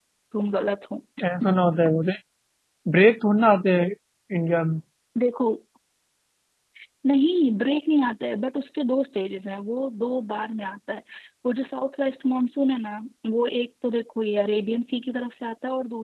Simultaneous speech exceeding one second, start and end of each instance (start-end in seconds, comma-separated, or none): none